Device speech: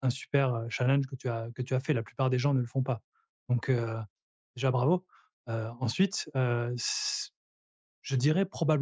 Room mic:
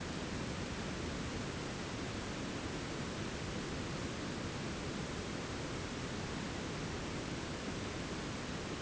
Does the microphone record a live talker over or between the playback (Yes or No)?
No